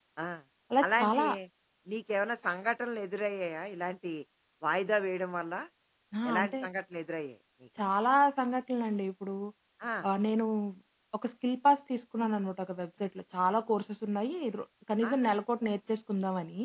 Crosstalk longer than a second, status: none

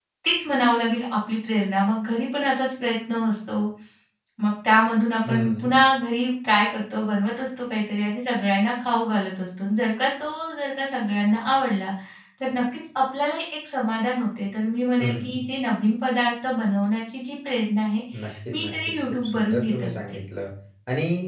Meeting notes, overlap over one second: present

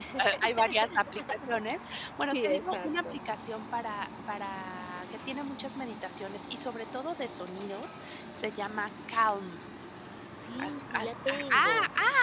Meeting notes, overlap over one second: present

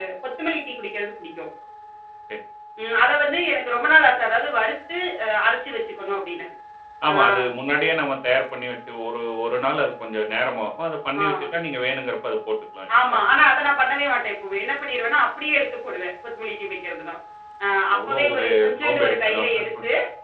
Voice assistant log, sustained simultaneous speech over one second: present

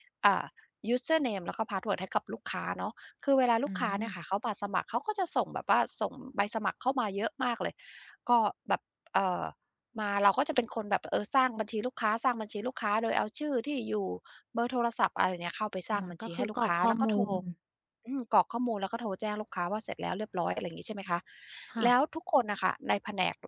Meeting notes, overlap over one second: present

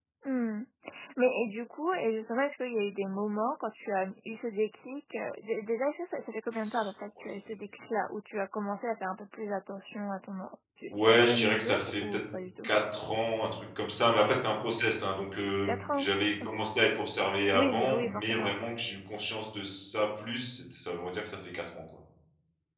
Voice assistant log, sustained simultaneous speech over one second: present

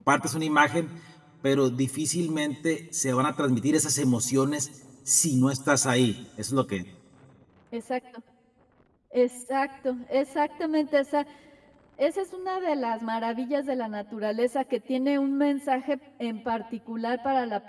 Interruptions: none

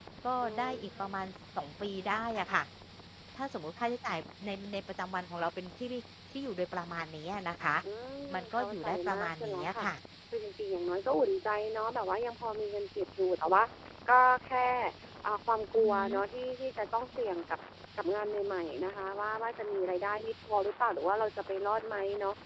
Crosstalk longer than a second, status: present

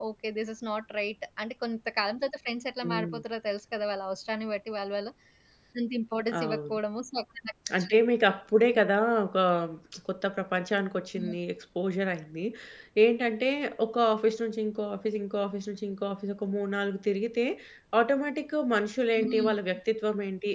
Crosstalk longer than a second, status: none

